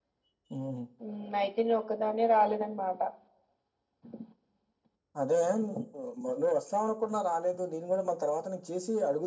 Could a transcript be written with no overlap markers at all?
Yes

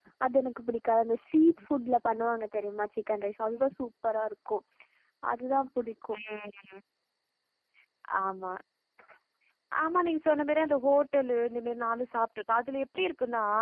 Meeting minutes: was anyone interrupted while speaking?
No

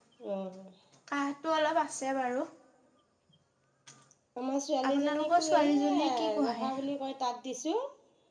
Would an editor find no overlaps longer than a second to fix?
No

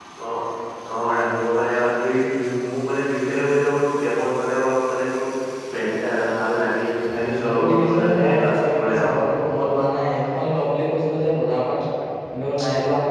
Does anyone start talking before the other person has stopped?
Yes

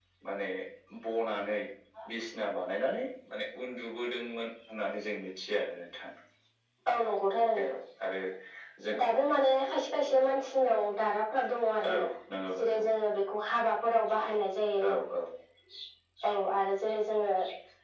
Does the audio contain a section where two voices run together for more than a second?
No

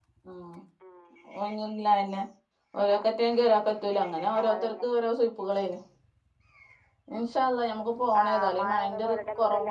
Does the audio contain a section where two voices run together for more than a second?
Yes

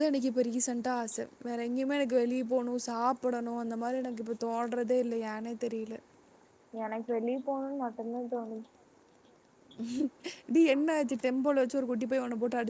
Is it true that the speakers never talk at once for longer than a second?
Yes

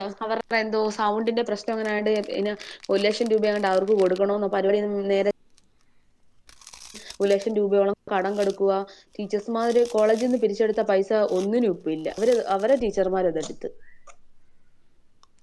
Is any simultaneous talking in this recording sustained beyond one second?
No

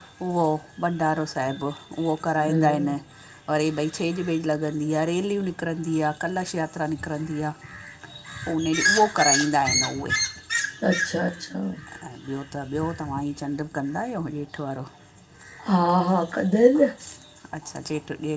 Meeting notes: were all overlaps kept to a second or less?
Yes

